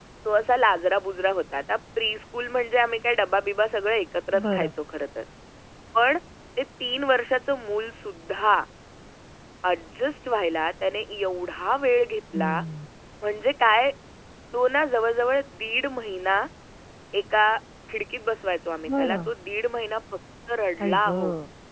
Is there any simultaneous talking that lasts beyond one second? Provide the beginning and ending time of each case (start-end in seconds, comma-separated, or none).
none